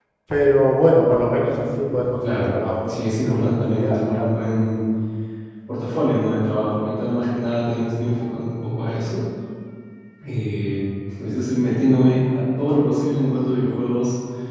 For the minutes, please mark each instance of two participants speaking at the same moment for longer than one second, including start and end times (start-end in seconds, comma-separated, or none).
2.9-4.3